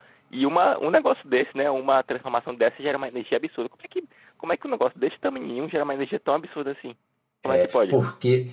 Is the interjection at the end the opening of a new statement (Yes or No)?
Yes